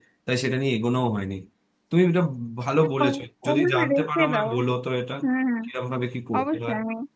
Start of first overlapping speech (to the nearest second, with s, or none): 3 s